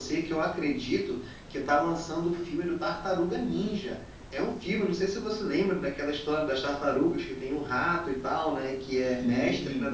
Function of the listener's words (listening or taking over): listening